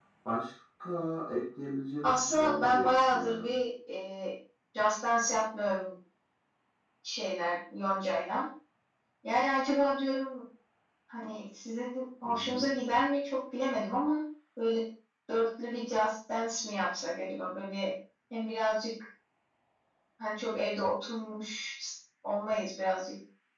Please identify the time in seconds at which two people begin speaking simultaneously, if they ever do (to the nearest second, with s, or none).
2 s